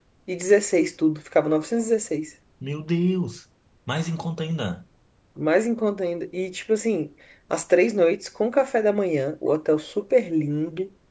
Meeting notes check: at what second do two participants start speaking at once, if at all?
none

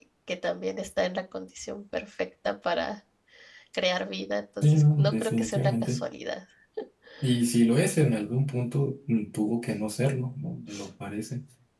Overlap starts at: 4.6 s

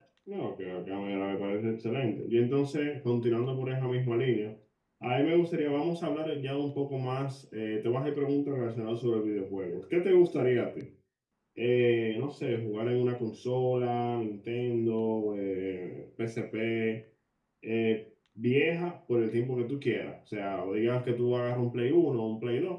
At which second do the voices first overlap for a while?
none

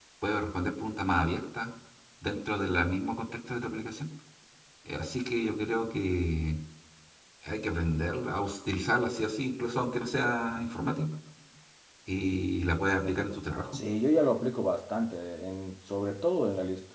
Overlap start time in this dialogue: none

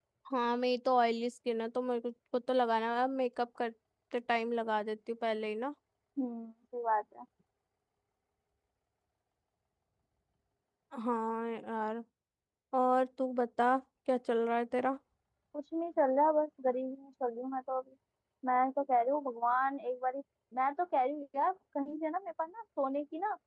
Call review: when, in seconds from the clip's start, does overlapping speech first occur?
none

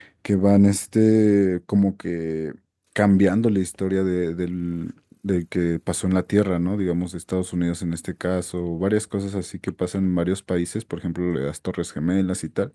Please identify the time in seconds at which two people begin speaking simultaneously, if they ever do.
none

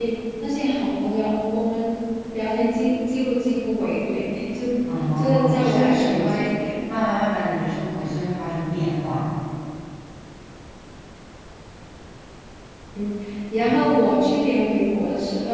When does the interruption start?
5.2 s

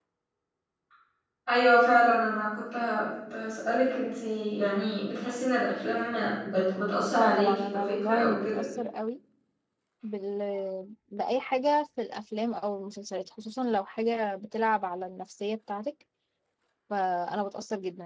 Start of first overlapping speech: 7.2 s

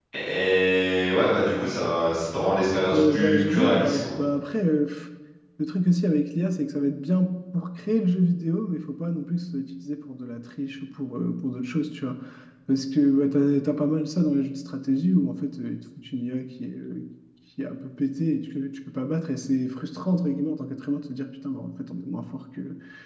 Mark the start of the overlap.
2.9 s

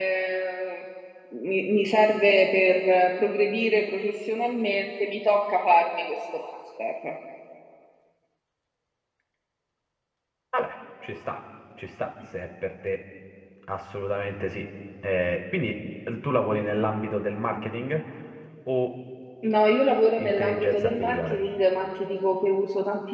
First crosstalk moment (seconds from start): 20.2 s

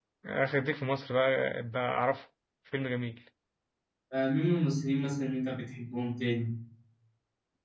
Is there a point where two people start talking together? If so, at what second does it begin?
none

